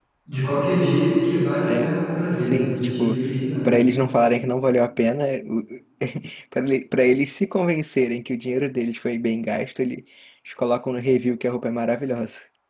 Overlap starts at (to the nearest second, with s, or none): 2 s